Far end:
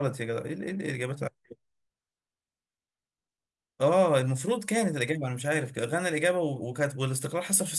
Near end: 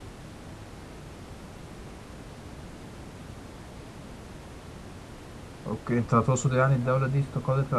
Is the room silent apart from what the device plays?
No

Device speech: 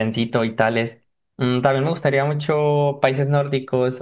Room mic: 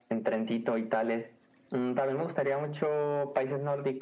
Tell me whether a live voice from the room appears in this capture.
No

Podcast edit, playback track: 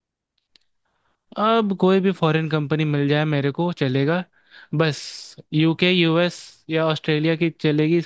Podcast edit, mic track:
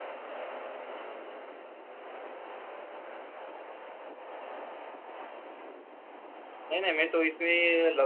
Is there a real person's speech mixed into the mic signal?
Yes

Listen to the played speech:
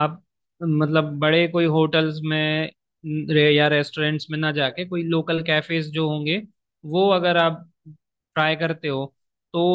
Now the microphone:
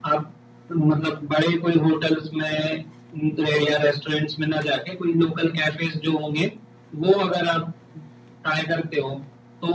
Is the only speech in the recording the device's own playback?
Yes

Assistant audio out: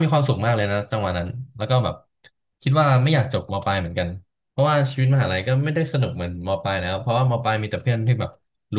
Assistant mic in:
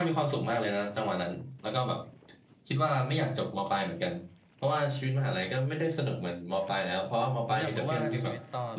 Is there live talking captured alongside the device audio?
Yes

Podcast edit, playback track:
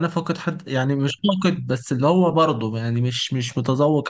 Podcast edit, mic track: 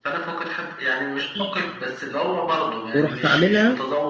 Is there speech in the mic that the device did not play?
Yes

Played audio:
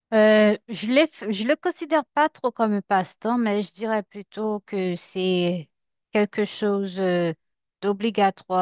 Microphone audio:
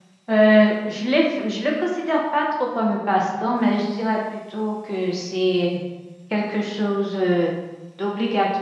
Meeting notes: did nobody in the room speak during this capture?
Yes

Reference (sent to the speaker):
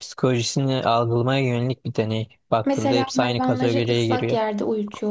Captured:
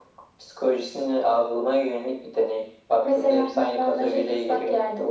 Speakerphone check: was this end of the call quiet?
Yes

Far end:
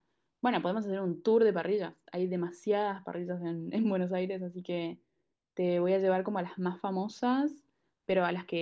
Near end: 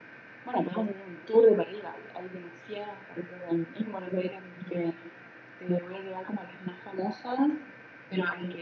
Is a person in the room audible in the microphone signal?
No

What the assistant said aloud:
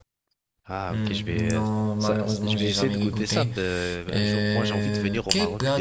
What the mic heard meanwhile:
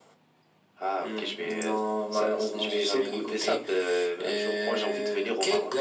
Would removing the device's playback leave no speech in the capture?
Yes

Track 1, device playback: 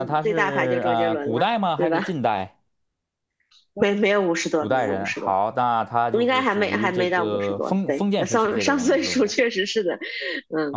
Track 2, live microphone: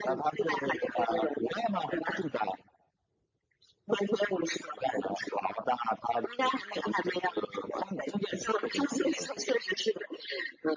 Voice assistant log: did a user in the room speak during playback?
No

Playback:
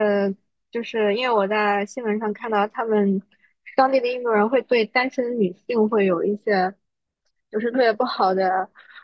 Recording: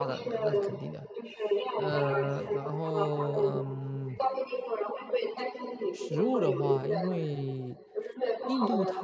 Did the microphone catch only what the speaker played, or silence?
No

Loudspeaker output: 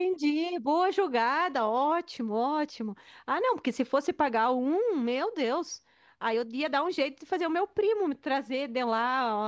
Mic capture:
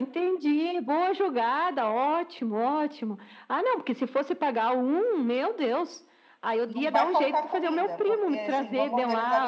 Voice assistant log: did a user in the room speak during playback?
Yes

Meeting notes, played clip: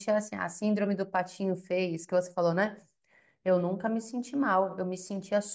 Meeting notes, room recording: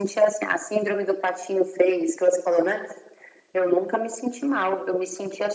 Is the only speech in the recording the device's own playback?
Yes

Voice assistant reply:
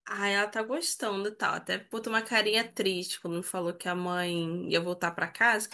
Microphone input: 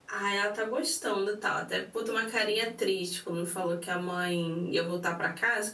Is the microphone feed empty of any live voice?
Yes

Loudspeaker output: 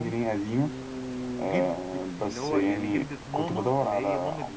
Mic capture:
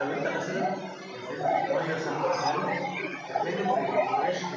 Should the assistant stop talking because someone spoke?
Yes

